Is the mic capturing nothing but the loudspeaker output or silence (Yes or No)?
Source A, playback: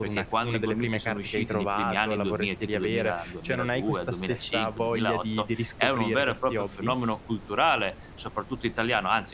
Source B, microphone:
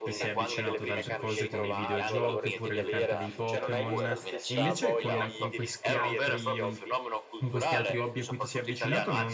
No